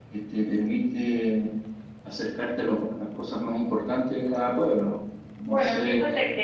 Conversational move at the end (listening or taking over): taking over